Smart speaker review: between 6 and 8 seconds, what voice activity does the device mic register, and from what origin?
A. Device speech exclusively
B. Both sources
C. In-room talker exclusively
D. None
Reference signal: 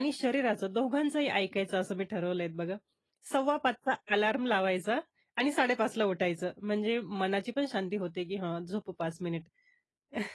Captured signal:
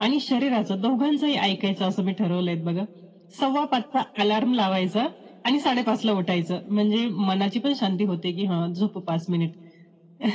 A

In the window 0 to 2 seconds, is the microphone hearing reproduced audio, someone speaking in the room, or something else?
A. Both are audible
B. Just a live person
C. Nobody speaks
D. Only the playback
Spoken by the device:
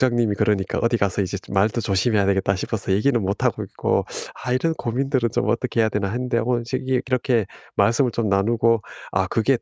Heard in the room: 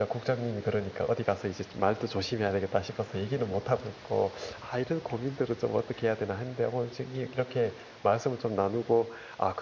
D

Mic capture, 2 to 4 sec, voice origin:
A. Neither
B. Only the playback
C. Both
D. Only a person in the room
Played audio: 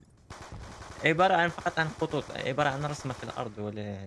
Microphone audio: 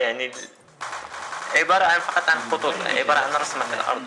C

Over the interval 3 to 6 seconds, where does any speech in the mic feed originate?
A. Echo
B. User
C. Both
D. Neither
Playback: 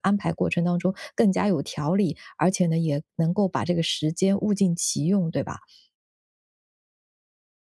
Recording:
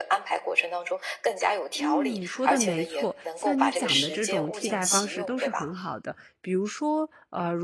C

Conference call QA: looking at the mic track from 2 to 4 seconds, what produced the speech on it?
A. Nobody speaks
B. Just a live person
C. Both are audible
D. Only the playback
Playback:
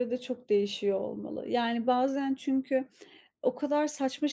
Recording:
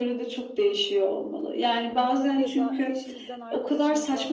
C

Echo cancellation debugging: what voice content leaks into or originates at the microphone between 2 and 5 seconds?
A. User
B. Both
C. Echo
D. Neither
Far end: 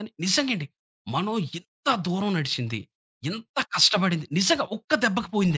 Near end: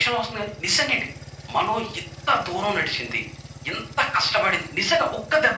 C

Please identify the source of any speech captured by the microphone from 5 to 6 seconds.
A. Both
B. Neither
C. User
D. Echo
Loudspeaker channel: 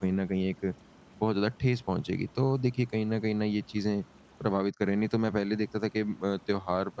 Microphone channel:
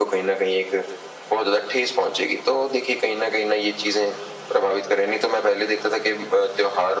D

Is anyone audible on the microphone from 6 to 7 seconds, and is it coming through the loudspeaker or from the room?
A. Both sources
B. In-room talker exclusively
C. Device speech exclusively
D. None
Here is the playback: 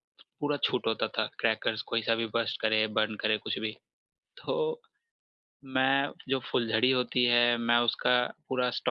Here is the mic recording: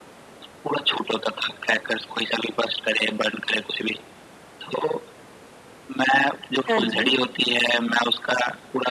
A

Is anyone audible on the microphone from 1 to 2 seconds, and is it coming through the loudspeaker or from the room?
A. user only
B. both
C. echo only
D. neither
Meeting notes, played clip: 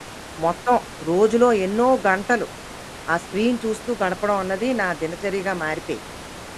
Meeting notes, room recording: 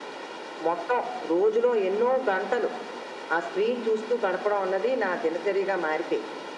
C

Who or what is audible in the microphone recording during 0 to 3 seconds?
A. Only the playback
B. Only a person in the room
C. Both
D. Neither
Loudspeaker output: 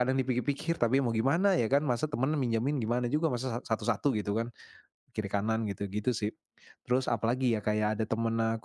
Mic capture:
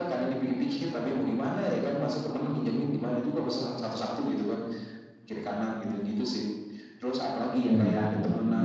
A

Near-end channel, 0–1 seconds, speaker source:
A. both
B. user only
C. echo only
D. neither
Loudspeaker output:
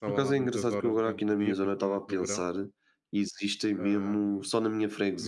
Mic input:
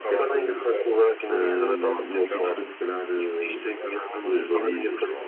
A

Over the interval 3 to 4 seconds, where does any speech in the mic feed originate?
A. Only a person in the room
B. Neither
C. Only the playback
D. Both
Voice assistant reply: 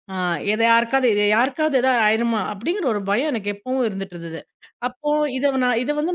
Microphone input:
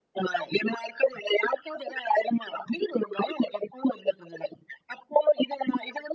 C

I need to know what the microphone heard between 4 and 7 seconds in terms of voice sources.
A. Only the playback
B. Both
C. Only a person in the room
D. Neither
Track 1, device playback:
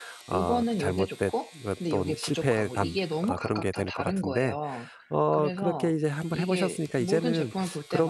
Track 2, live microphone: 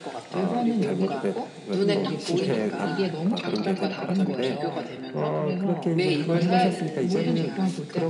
B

